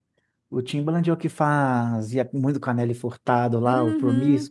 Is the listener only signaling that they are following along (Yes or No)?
No